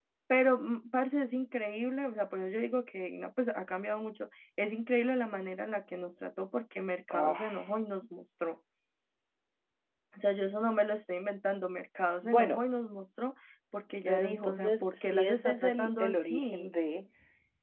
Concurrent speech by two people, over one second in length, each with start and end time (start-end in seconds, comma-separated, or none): 14.0-16.7